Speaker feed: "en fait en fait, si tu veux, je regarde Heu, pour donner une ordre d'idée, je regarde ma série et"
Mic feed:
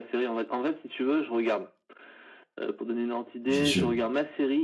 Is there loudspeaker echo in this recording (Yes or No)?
Yes